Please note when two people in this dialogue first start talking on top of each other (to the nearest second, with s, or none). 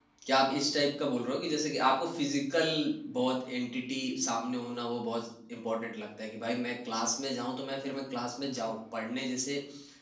none